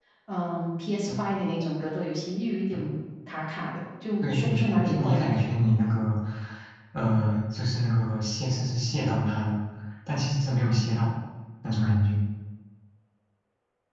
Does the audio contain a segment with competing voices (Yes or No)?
Yes